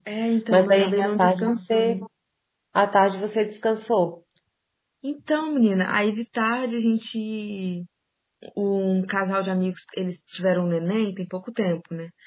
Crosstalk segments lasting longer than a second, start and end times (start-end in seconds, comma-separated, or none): 0.5-2.0